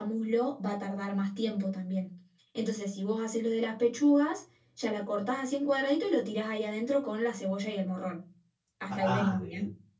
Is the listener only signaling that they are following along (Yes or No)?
No